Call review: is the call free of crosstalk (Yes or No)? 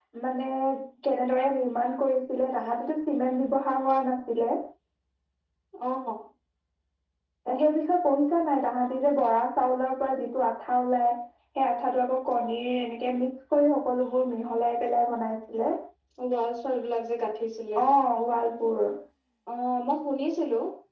Yes